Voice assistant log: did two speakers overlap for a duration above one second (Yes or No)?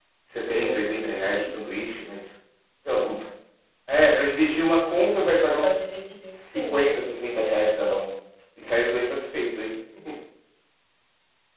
No